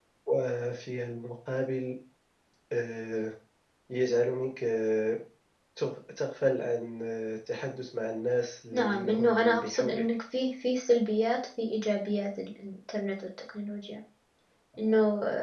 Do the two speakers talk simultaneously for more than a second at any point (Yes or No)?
Yes